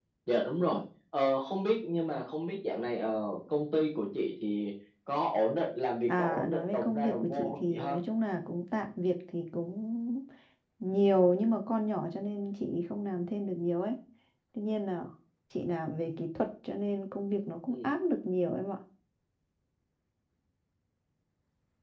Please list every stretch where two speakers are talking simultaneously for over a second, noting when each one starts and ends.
6.1-8.0

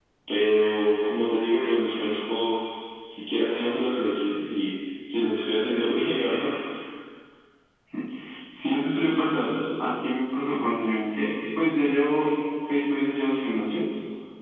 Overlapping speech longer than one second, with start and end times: none

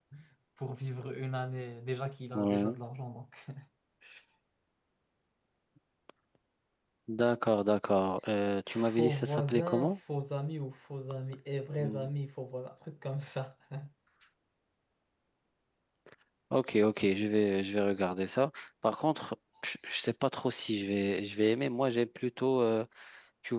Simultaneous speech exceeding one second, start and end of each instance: 8.7-9.9

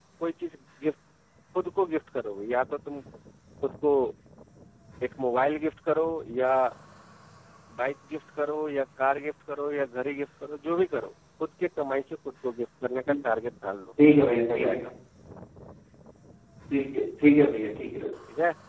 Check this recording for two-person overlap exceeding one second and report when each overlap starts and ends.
none

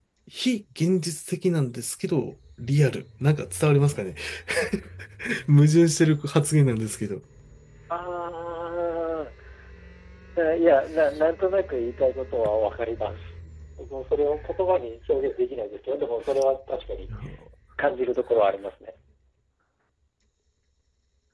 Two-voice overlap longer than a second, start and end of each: none

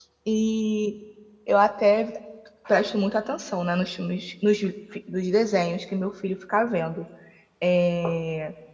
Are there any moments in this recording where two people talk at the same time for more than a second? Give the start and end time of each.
none

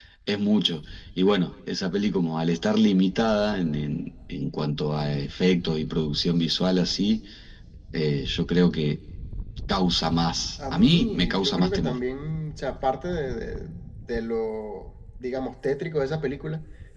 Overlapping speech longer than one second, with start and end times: 10.7-12.0

